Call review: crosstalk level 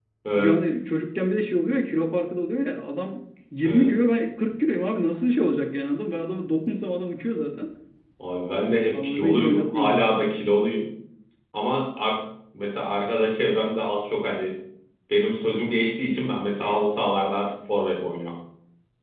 present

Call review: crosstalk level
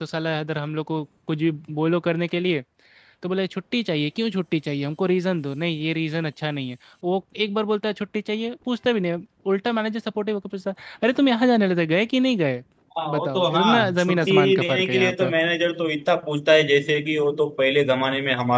present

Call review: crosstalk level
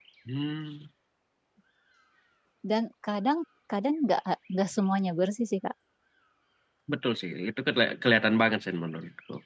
none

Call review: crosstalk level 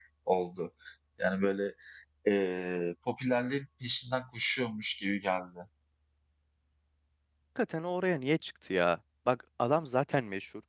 none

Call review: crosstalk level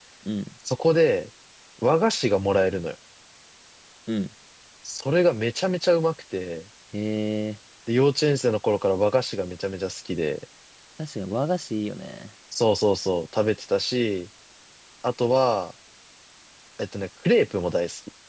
none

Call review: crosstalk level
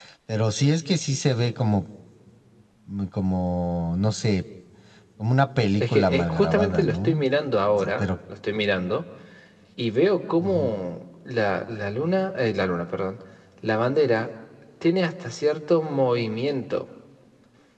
present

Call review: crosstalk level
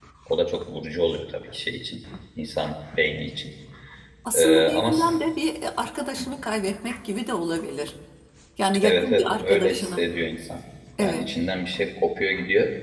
present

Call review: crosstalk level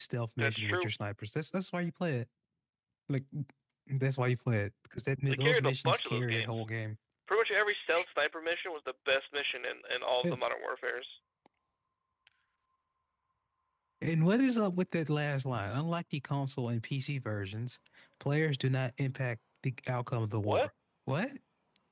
present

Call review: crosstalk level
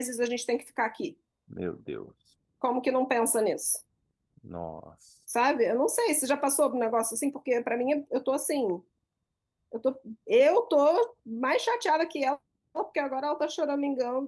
none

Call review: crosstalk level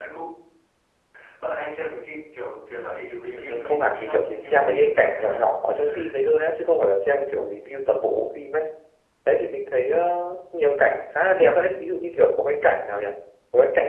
present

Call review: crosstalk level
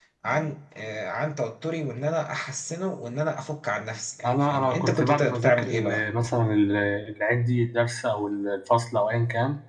present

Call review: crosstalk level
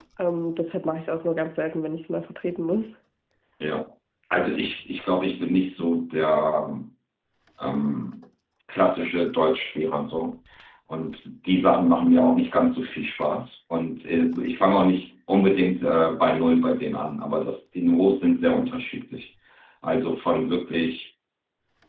none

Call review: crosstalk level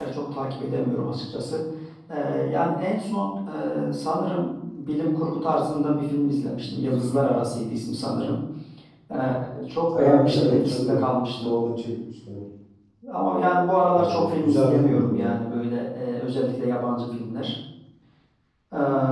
present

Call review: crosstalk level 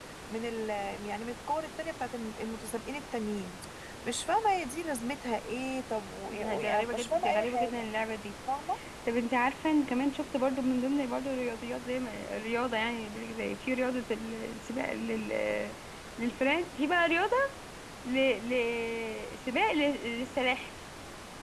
present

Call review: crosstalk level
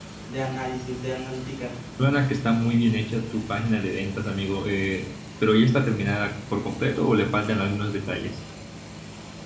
none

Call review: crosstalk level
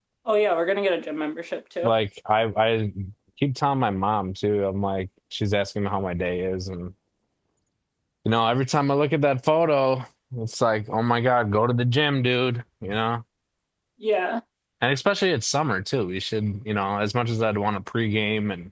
none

